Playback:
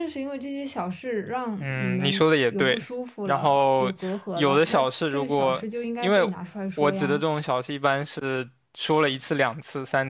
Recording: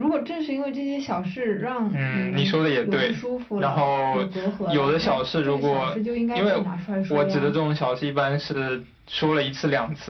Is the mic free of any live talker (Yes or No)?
Yes